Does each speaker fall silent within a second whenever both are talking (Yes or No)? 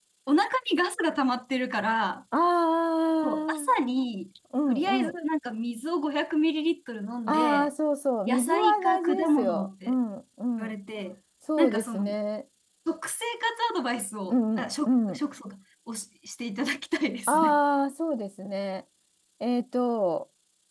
No